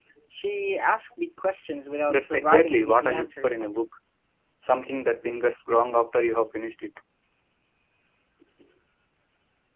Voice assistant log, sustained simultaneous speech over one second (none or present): present